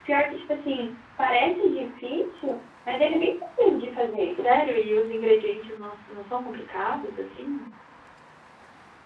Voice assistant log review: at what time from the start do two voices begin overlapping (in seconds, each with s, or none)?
none